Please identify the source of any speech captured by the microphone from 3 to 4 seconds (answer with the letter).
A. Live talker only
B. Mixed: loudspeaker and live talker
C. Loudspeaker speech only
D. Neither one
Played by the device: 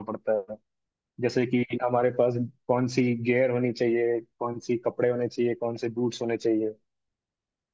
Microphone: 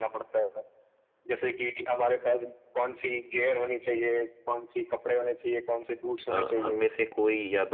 C